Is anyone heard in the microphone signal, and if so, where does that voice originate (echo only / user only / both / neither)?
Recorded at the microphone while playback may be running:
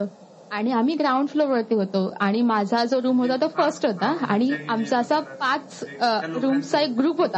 both